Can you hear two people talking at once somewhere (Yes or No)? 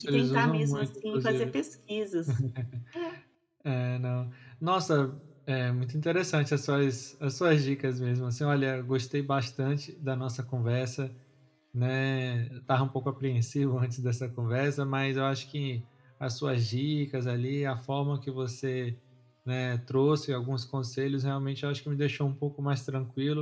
Yes